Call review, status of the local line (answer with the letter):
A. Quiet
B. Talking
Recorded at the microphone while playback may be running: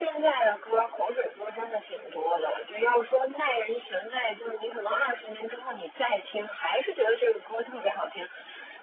A